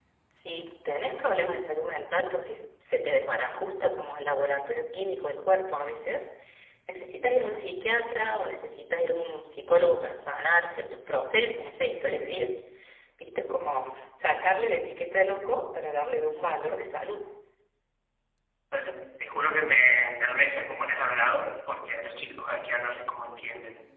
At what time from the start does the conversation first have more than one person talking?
none

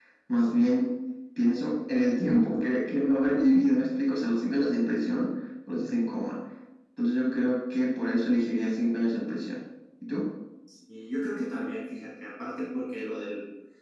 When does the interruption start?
none

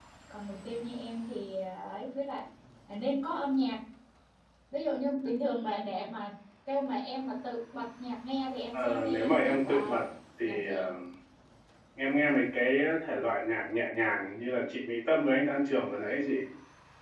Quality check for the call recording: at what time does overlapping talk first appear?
8.7 s

